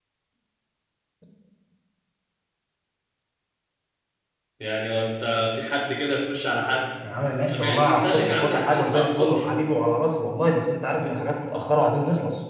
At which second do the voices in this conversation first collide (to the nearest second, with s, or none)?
8 s